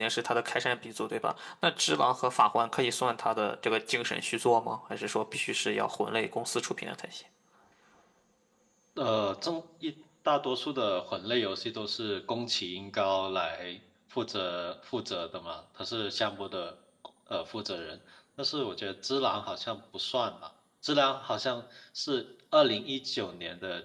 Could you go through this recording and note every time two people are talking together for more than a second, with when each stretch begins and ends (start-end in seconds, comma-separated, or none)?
none